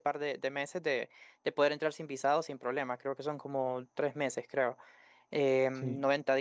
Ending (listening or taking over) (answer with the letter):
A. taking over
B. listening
B